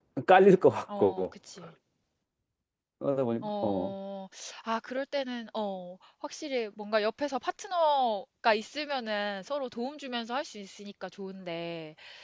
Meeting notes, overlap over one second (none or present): none